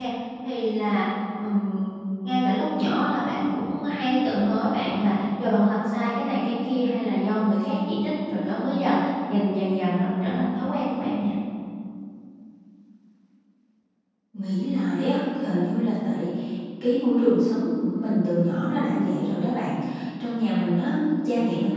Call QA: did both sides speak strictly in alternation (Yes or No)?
Yes